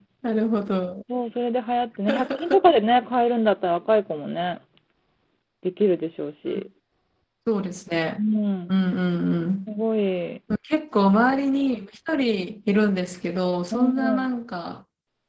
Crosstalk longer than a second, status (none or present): none